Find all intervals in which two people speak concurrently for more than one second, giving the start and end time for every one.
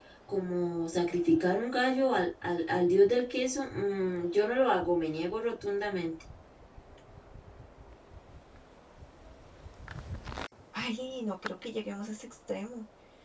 none

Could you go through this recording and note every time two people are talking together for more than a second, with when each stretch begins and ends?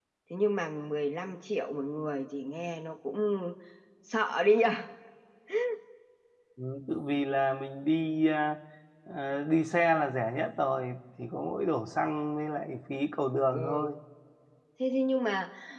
none

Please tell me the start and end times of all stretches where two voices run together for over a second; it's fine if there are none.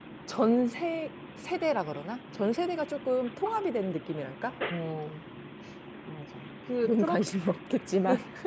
none

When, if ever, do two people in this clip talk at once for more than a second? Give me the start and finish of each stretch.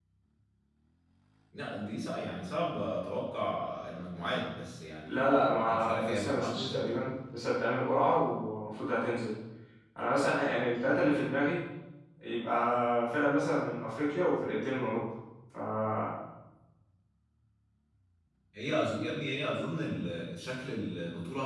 5.0-7.1

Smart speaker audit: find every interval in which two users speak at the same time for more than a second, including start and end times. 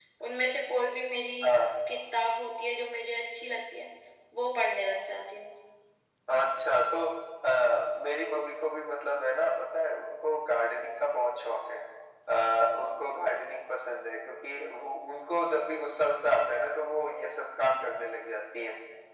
none

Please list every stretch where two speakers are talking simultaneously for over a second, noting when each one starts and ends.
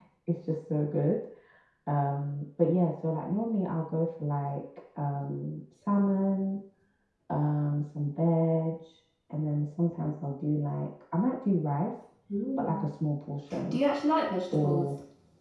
none

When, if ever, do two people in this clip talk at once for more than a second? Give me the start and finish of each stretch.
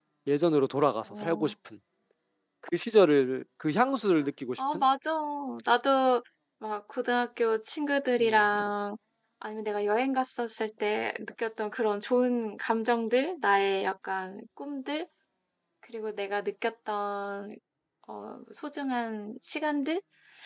none

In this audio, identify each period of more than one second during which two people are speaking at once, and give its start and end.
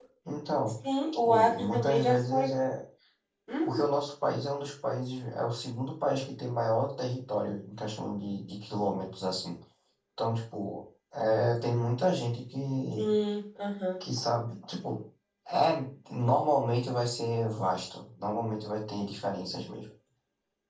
1.2-2.5

